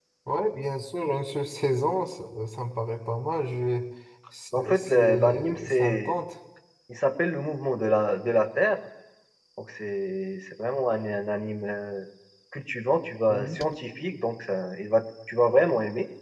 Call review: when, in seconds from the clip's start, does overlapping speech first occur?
4.5 s

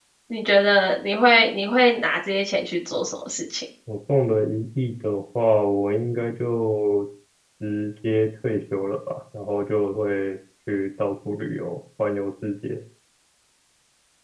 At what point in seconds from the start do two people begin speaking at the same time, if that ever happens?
none

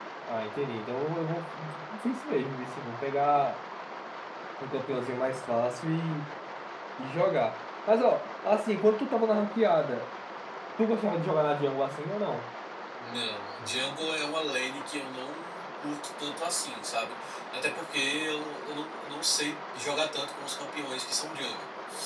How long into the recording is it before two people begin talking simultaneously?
none

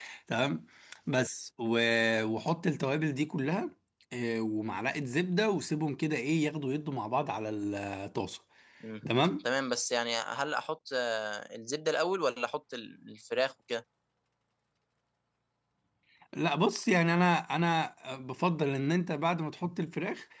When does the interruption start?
none

